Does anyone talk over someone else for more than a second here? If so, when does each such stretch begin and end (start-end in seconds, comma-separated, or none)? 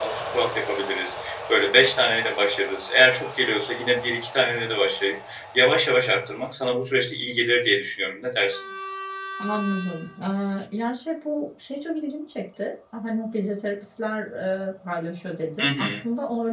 none